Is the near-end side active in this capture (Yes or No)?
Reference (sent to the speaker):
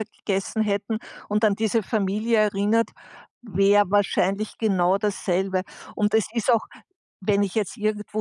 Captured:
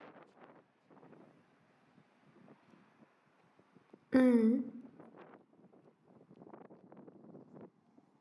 Yes